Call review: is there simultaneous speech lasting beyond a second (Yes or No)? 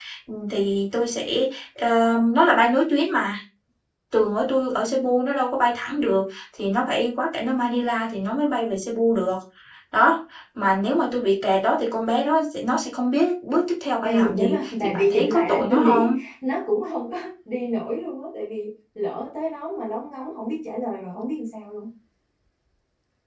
Yes